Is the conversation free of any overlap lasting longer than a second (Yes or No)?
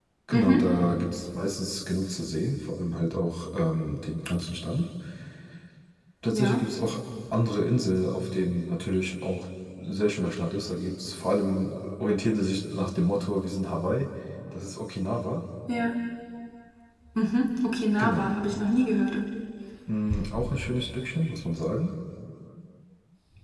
Yes